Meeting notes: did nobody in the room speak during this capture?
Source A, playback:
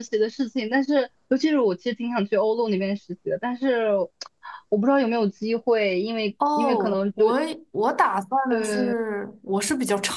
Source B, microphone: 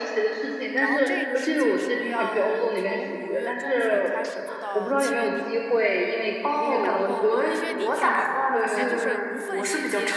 No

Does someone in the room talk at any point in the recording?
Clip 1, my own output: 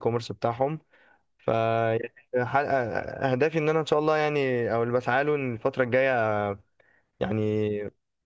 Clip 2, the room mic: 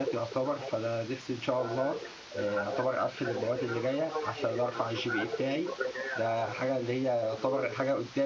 Yes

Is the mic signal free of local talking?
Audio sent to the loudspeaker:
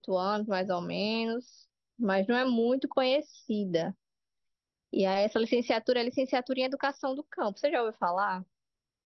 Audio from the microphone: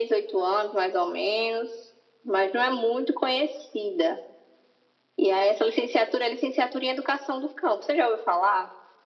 Yes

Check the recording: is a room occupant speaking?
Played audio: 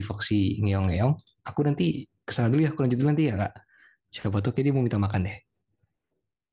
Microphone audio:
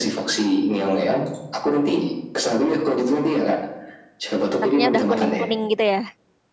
Yes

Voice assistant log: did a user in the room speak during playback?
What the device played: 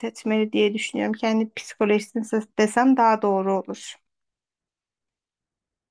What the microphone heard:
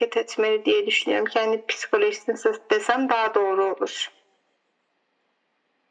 No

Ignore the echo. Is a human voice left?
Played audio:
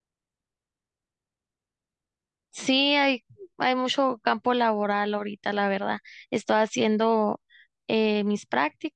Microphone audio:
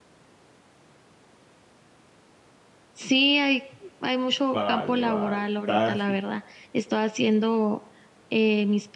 Yes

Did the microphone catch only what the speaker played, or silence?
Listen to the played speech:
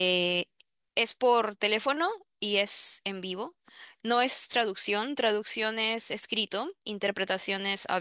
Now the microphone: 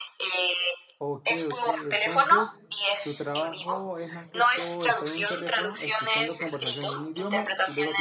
No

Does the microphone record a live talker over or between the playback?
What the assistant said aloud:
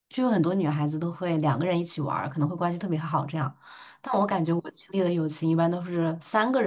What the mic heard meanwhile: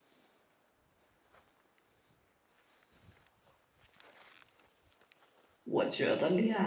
Yes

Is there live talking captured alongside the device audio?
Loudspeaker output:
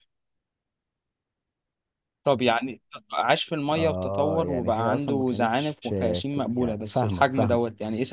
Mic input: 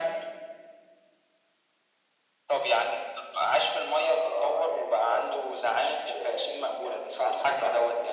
No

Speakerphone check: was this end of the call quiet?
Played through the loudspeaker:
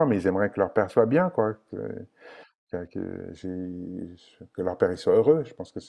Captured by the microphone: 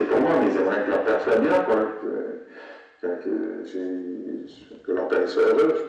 Yes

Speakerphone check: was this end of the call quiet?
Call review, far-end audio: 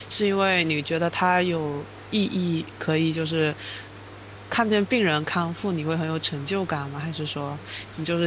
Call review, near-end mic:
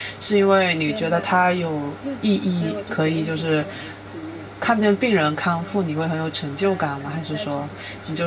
No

